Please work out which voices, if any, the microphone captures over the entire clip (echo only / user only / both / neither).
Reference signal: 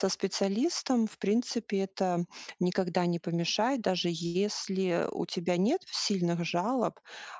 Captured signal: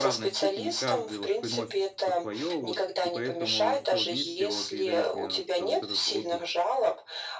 both